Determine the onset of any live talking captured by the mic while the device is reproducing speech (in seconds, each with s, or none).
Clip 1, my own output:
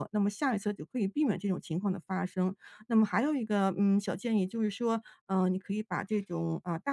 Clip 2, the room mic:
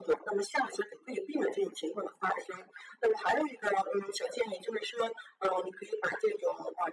none